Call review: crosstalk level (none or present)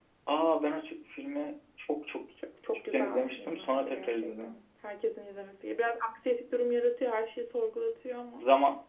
present